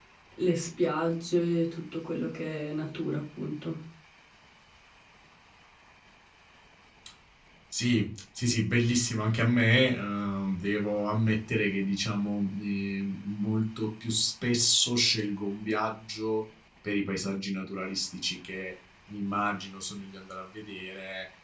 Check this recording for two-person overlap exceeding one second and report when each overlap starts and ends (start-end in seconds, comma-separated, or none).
none